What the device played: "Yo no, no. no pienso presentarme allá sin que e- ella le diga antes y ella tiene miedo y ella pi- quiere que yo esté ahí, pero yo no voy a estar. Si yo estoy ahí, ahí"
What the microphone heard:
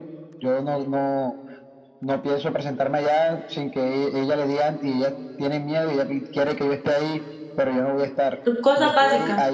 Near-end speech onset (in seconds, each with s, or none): 8.4 s